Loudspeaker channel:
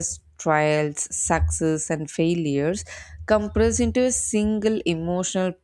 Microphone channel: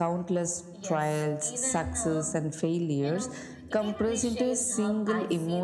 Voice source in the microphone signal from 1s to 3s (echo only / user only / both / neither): both